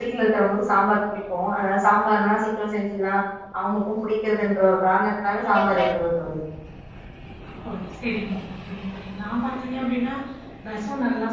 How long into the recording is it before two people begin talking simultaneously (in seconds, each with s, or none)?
none